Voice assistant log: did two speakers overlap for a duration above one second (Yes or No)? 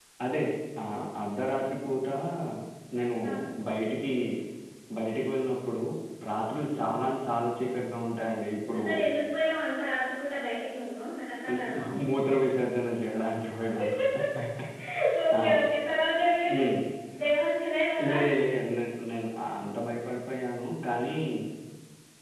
No